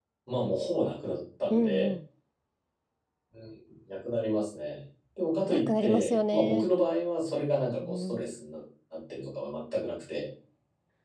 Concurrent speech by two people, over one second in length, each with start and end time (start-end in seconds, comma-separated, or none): 5.4-6.7